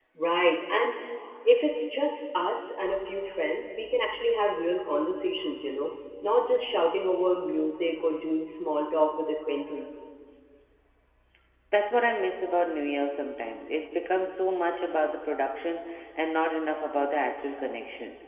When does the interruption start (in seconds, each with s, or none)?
none